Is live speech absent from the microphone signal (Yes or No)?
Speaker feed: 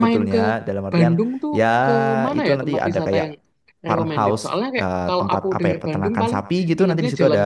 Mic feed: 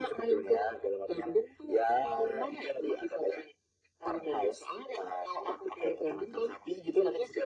Yes